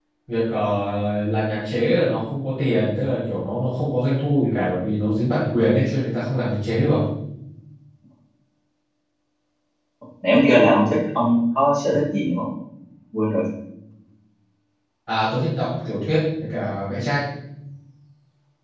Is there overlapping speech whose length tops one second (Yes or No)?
No